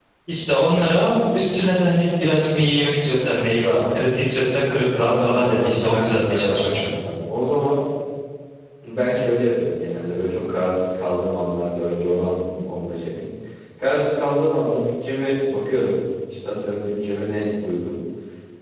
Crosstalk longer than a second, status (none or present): present